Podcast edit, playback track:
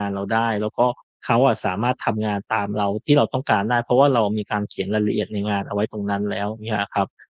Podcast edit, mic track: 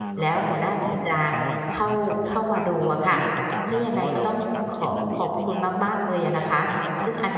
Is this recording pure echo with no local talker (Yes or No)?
No